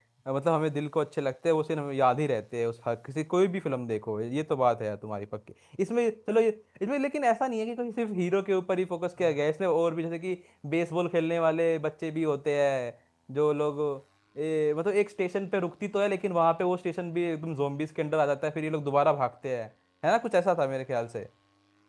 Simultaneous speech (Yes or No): No